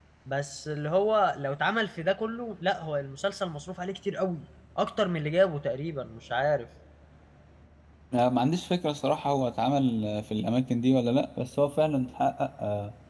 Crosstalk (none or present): none